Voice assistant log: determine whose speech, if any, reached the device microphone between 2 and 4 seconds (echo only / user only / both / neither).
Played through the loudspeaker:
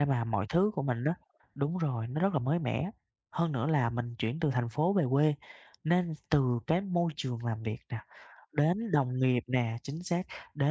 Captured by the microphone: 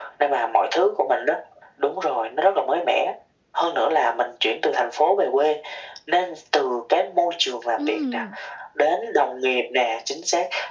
echo only